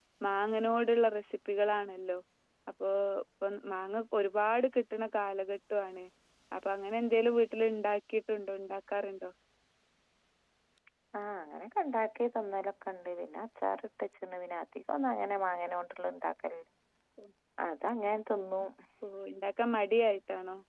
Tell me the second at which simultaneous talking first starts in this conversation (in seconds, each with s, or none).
none